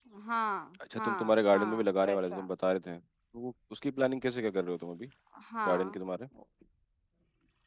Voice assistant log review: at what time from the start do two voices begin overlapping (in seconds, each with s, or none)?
1.0 s